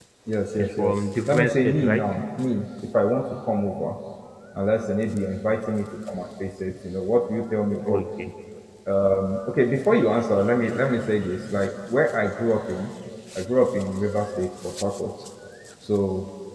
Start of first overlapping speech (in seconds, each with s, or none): 0.6 s